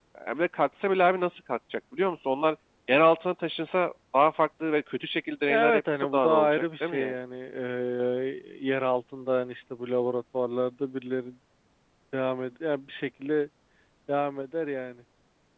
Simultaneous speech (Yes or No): Yes